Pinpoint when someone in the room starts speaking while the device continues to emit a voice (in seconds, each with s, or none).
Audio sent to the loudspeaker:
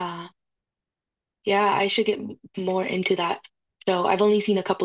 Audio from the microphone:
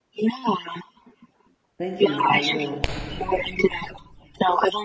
1.8 s